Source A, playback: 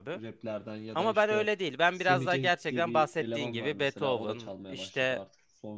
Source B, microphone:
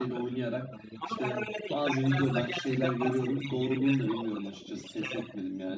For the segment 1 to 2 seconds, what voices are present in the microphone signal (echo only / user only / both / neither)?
both